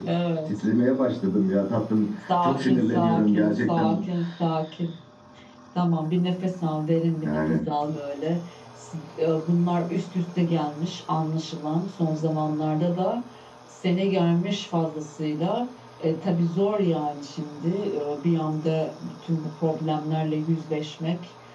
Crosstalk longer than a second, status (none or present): present